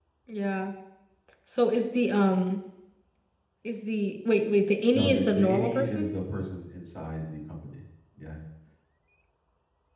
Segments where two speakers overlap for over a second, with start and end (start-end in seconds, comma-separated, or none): 4.9-6.2